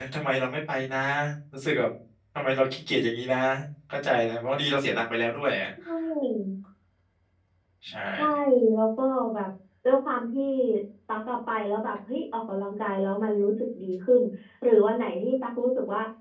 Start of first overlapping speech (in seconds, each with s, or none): none